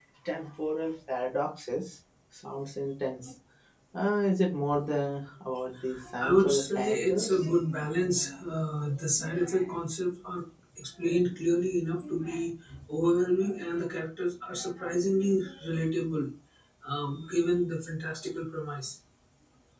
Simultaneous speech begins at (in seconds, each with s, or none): 6.2 s